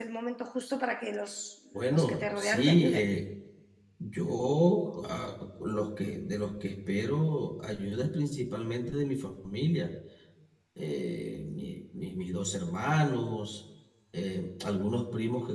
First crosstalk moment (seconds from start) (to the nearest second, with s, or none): 2 s